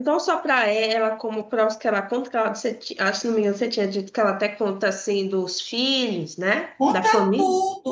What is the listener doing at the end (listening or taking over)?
taking over